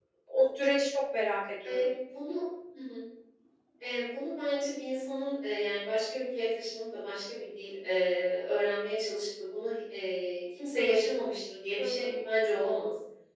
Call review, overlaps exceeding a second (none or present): none